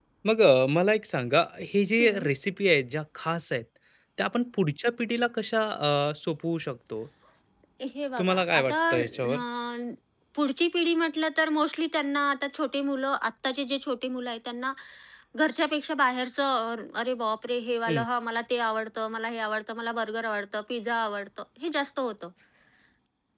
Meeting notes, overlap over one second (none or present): present